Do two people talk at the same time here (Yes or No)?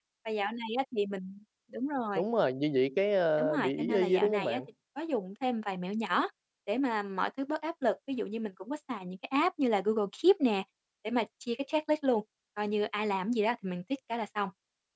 Yes